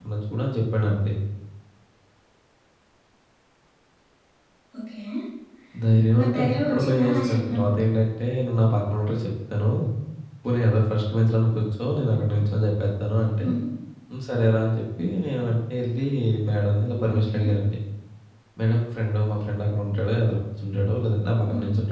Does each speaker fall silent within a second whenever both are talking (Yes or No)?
No